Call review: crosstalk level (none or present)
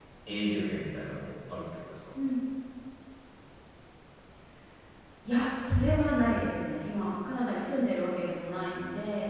none